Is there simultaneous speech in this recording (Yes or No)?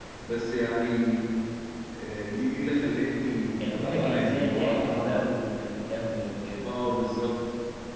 Yes